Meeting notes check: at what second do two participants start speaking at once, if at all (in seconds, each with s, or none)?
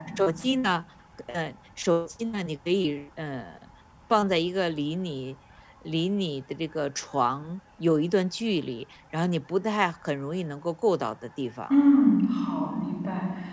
none